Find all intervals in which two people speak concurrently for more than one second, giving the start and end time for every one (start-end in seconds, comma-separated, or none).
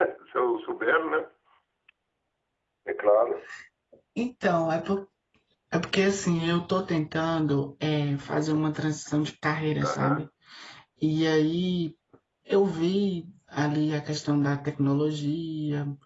none